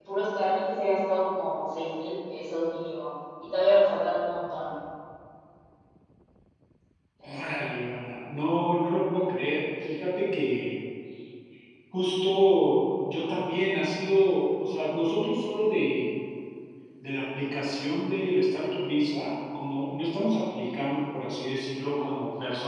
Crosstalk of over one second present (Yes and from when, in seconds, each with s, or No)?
No